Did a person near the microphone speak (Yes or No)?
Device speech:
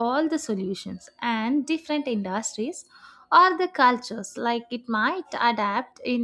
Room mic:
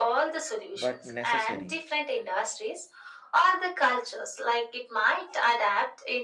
Yes